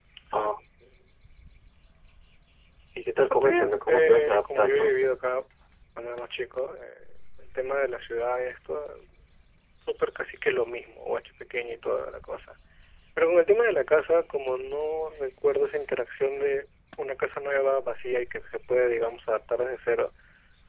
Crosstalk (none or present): present